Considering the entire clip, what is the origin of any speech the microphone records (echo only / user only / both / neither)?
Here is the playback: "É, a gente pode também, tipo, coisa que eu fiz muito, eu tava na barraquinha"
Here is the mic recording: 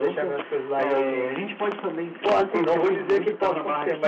both